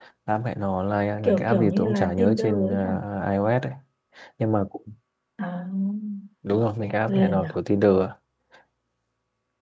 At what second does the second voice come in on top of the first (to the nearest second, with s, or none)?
1 s